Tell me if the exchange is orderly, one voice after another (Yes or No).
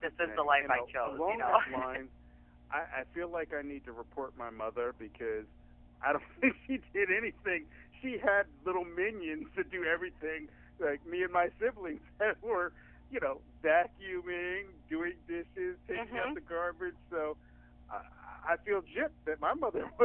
No